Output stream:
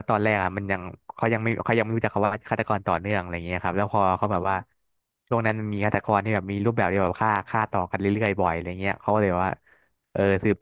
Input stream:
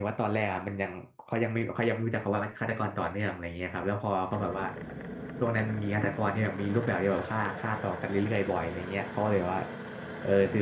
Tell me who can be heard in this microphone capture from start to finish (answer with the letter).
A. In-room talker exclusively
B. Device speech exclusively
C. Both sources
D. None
B